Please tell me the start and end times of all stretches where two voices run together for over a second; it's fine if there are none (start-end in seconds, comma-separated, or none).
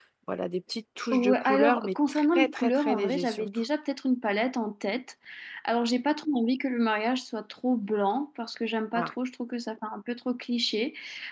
1.1-3.5